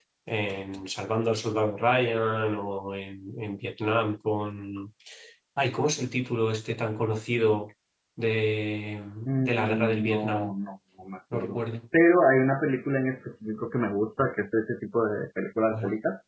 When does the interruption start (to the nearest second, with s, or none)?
9 s